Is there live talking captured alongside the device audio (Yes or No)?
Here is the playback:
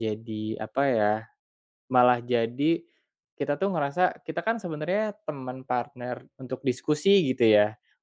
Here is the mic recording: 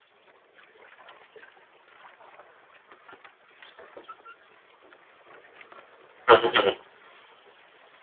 Yes